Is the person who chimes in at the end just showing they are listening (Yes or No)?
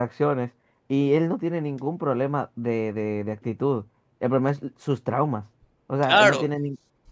Yes